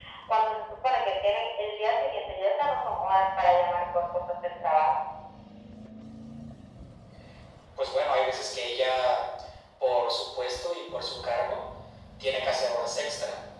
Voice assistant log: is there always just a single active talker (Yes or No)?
Yes